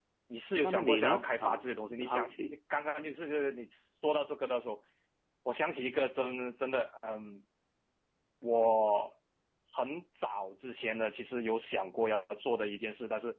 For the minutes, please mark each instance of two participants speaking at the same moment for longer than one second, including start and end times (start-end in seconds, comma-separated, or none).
0.6-2.6